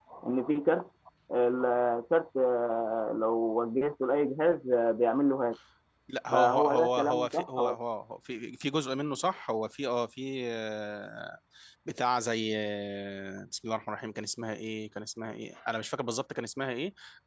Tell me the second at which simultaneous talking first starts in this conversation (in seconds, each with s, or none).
6.3 s